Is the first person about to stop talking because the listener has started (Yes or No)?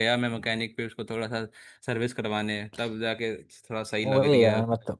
Yes